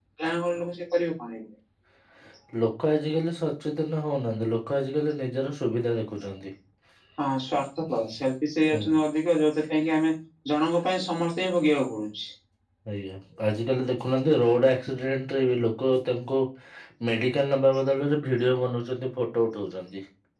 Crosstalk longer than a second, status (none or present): none